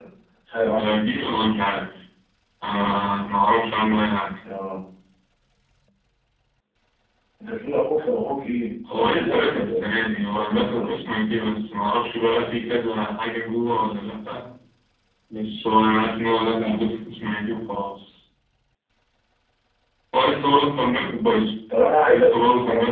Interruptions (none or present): present